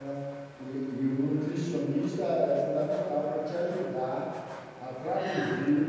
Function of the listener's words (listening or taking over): listening